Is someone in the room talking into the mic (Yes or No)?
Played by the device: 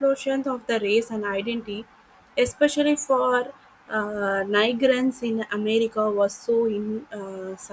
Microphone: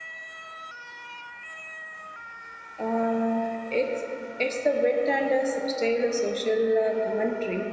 Yes